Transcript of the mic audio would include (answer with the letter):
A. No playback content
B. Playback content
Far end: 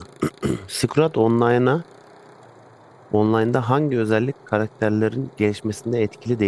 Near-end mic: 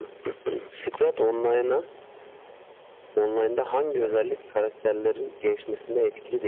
B